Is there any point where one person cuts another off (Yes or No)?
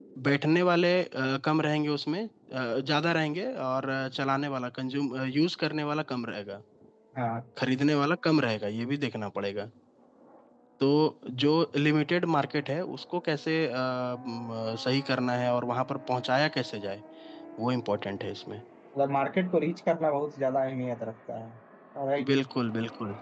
No